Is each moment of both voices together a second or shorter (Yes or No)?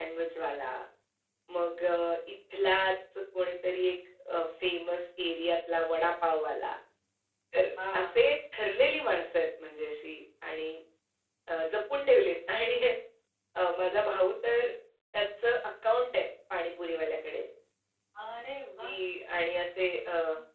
Yes